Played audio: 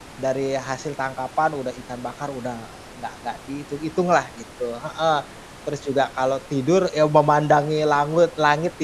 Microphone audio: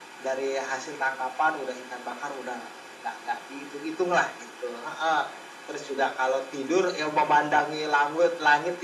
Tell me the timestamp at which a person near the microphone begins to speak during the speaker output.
none

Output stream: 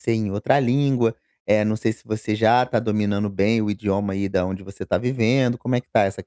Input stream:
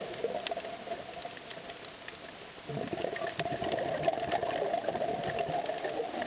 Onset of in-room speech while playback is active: none

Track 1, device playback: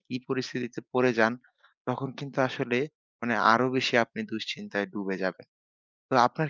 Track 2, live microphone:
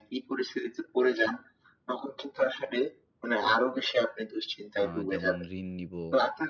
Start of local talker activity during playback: 4.8 s

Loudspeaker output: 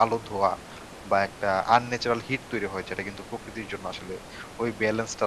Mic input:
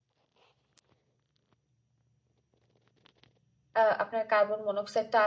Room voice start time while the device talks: 3.8 s

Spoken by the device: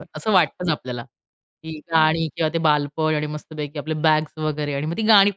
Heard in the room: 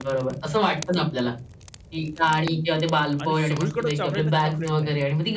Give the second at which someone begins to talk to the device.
3.2 s

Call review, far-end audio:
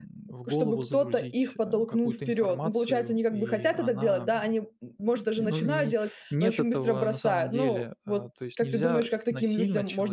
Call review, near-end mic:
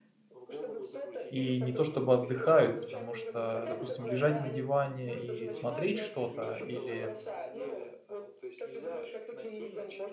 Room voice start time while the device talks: 1.3 s

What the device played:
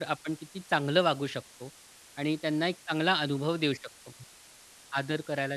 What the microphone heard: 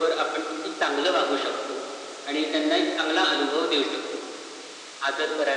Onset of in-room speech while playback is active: none

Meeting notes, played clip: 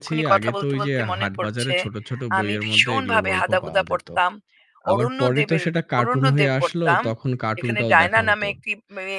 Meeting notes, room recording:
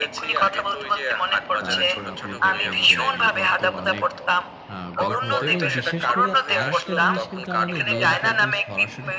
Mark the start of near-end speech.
1.6 s

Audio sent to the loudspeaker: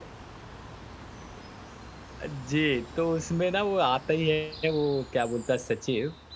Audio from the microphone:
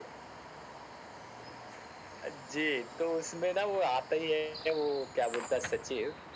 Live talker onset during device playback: none

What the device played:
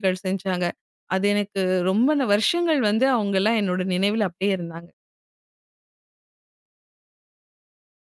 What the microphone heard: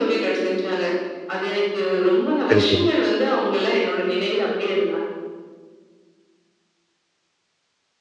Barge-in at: 2.5 s

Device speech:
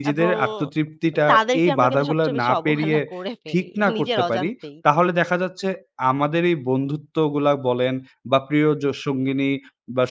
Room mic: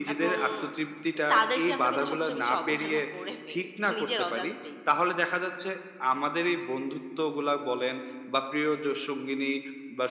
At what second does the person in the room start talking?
none

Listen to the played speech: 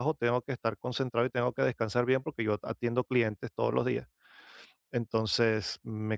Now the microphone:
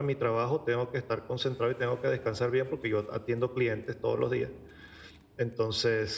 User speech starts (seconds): none

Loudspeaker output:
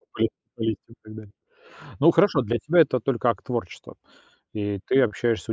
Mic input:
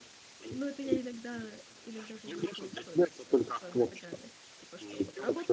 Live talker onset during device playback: 0.5 s

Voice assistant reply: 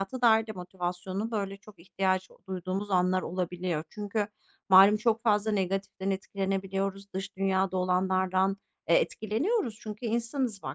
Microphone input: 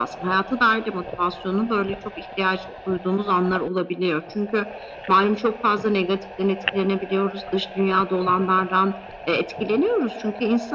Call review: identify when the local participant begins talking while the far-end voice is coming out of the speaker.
none

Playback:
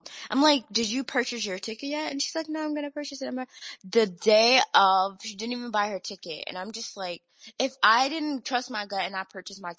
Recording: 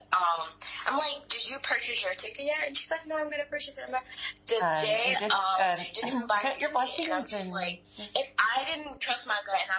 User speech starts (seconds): 4.6 s

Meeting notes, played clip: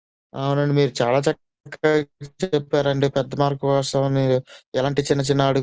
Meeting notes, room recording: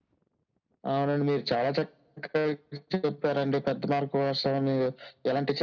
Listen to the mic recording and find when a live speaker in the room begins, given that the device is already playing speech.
none

